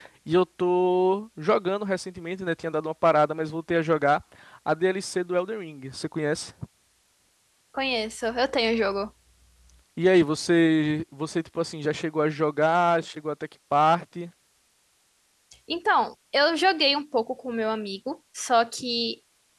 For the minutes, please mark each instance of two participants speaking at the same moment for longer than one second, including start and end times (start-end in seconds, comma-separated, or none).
none